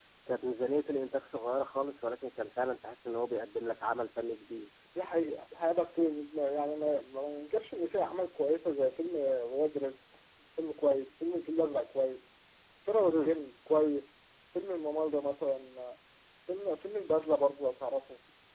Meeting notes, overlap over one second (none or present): none